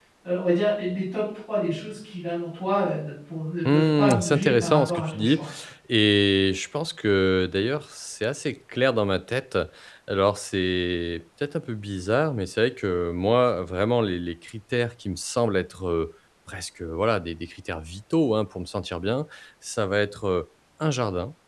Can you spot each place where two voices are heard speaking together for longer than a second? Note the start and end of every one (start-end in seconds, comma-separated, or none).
3.7-5.4